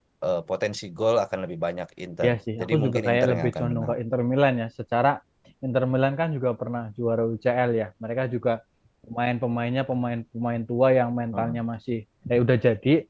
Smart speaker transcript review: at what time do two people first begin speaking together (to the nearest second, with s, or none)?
2 s